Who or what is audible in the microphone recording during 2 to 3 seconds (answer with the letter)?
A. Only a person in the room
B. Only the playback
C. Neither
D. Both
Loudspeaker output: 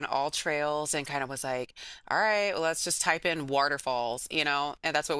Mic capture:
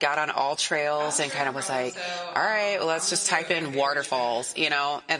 D